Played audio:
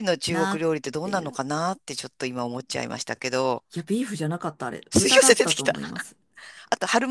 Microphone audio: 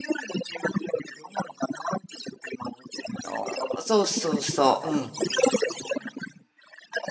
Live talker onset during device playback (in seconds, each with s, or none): 3.2 s